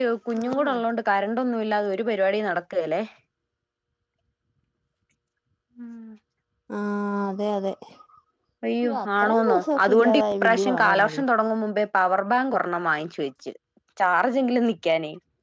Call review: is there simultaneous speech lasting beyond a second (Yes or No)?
Yes